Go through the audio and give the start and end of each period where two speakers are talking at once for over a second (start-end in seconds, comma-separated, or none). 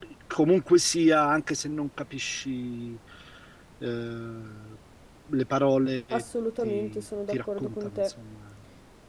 6.6-8.1